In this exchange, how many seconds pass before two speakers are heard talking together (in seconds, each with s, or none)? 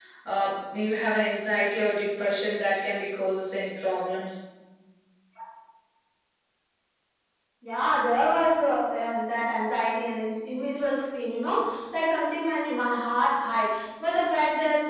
none